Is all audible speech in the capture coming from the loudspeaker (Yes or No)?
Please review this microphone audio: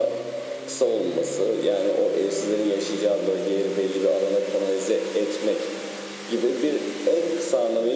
Yes